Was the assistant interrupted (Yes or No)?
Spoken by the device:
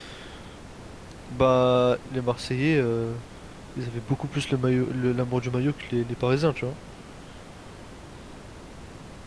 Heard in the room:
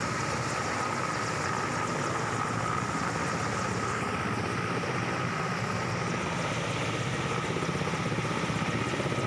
No